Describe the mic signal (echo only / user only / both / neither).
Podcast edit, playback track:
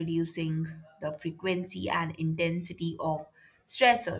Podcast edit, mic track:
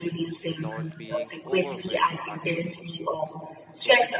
both